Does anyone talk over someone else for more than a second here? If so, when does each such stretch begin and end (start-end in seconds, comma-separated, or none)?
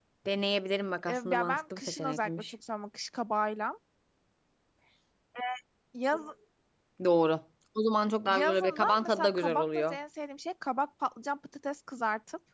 1.1-2.5, 8.3-10.0